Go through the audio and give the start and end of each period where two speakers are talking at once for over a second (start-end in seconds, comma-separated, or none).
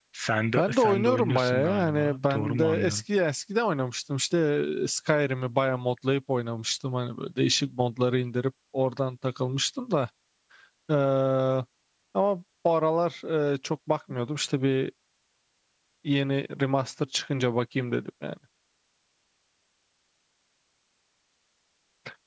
0.6-3.0